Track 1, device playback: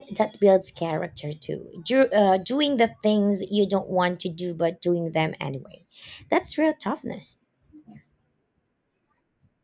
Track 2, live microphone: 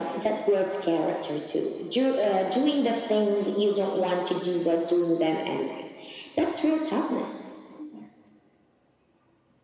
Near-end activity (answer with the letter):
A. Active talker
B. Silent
B